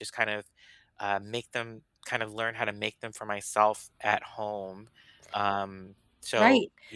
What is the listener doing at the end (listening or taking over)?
taking over